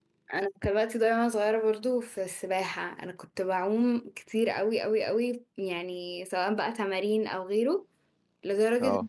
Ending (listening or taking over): listening